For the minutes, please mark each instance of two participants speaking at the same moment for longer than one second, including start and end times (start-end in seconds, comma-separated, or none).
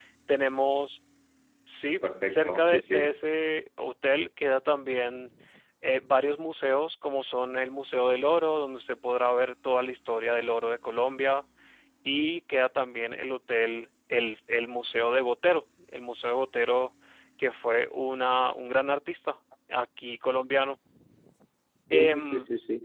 1.8-3.2